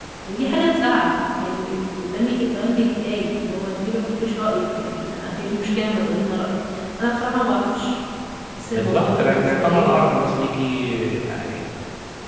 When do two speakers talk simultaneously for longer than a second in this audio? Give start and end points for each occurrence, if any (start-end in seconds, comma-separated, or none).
8.7-10.5